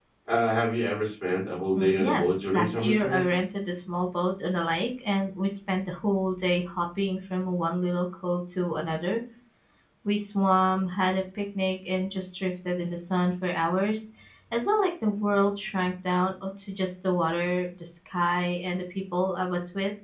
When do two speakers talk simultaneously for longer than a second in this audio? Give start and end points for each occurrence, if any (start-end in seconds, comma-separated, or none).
1.7-3.2